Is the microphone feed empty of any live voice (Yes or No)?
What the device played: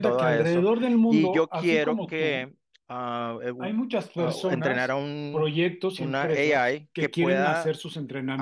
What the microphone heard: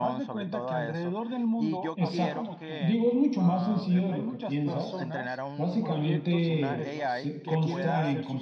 No